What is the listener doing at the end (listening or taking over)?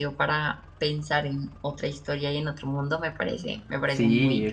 taking over